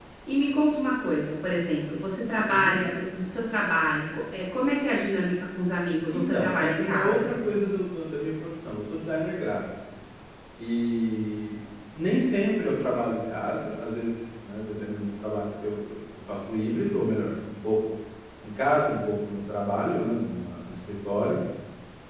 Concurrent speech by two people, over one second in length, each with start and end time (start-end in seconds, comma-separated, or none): 6.1-7.4